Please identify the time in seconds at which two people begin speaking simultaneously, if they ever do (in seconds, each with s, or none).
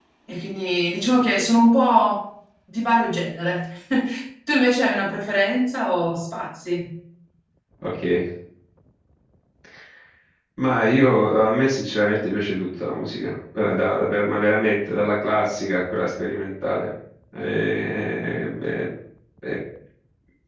none